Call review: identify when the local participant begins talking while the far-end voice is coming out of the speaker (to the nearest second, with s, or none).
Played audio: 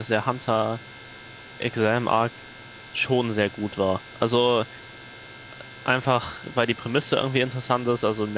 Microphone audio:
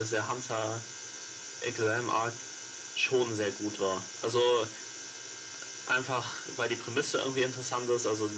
none